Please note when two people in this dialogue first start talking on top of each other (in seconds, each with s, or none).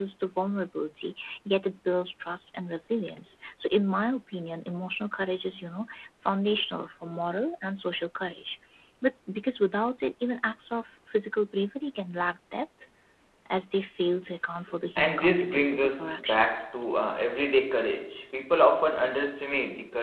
15.0 s